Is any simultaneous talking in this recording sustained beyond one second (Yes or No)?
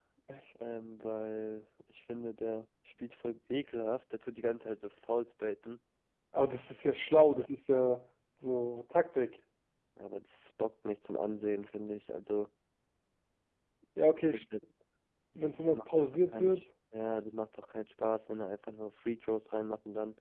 Yes